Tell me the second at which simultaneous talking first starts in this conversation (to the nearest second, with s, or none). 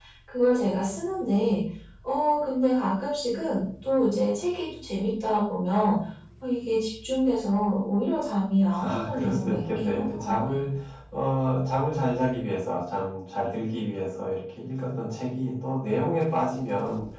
9 s